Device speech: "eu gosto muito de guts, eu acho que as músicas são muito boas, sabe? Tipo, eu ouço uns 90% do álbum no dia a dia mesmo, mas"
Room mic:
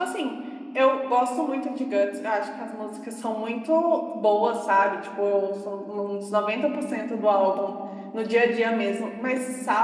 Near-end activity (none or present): none